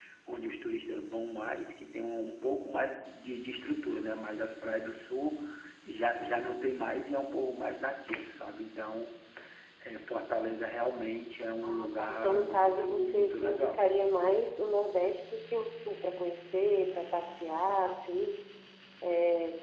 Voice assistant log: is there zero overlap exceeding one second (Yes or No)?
No